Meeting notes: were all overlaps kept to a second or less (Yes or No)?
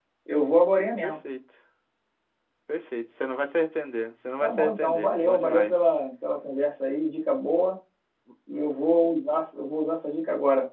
No